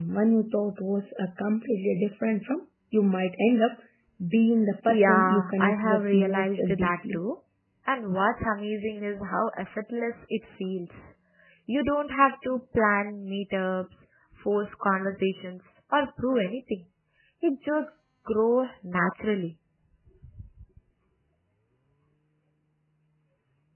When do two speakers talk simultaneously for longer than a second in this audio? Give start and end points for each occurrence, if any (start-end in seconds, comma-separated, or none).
4.9-7.2